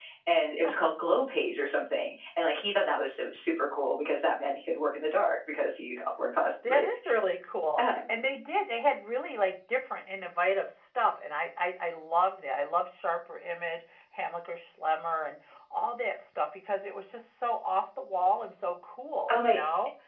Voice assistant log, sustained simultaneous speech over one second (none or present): none